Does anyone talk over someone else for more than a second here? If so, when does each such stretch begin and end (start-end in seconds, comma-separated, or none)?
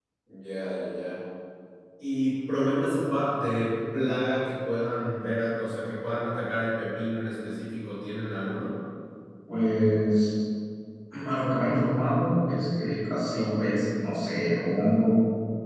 none